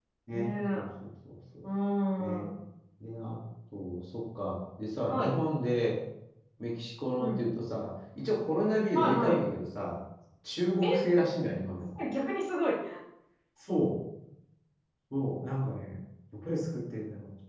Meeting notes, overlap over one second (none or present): none